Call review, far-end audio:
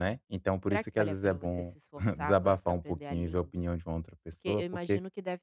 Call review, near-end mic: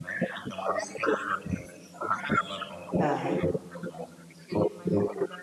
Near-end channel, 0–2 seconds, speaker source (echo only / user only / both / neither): echo only